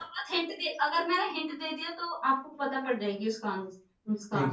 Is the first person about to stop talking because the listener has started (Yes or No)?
Yes